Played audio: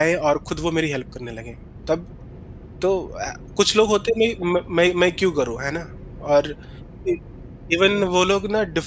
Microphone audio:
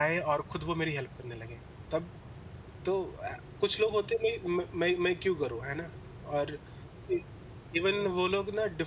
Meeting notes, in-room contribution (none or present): none